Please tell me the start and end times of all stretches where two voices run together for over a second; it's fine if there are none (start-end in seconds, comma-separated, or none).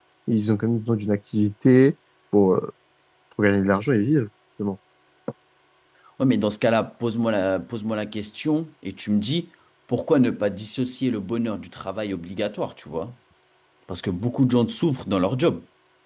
none